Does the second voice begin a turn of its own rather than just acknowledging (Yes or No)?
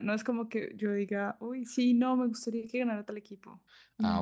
Yes